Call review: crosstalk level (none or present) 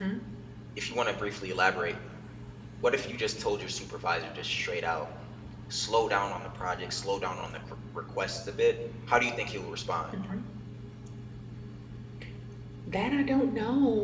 none